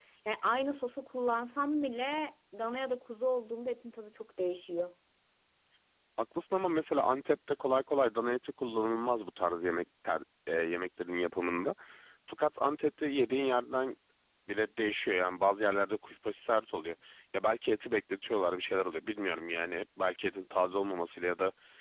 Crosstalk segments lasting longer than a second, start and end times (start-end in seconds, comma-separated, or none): none